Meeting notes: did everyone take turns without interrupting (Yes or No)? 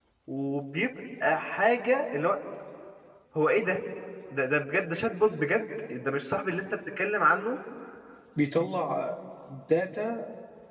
Yes